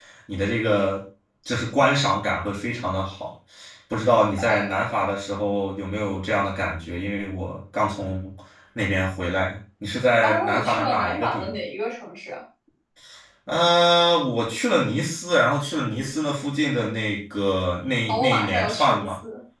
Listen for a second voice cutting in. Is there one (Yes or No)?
Yes